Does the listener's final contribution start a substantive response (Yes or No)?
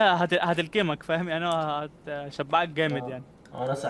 Yes